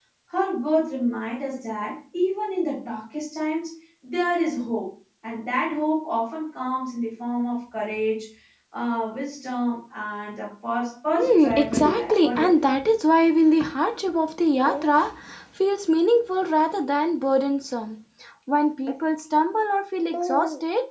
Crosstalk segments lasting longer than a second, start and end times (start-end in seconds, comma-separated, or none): 11.2-12.6